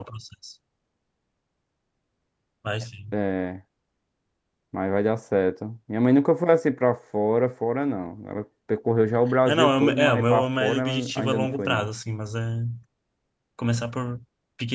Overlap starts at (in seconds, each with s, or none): 9.5 s